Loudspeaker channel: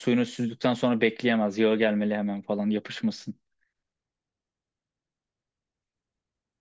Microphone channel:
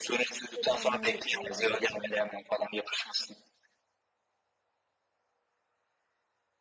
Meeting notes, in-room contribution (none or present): present